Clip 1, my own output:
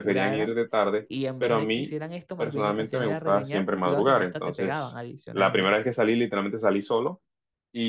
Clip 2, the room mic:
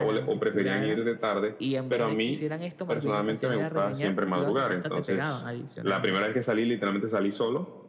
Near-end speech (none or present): none